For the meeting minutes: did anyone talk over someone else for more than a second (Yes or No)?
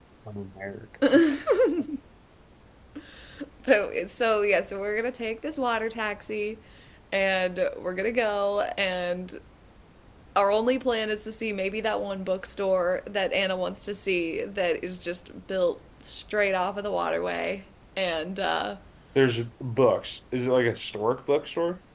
No